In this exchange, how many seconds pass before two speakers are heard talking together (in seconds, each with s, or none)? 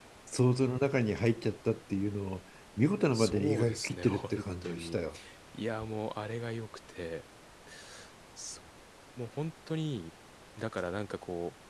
3.1 s